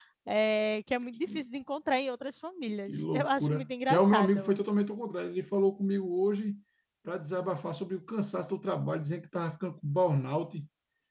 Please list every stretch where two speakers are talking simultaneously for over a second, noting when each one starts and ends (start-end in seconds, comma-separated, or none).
2.9-4.5